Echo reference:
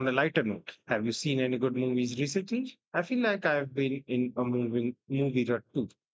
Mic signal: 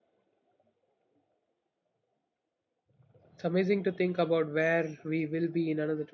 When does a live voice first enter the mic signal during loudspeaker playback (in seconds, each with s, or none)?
3.3 s